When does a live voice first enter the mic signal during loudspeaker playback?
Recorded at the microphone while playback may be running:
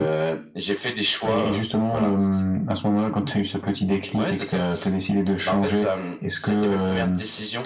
none

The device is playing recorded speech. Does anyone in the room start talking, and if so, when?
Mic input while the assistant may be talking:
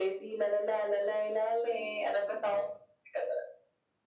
none

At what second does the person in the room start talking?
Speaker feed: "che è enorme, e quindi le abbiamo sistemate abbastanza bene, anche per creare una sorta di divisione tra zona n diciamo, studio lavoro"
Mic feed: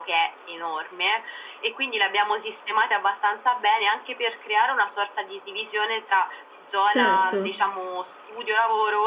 6.9 s

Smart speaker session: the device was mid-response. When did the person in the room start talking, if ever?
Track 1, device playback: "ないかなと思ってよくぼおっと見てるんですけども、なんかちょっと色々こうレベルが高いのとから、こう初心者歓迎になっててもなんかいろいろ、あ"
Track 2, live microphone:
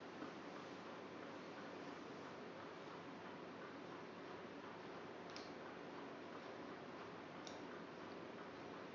none

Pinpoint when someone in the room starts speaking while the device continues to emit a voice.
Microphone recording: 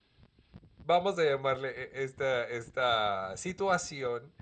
0.8 s

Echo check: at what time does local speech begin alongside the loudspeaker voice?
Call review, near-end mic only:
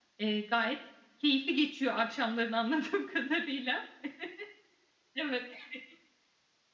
none

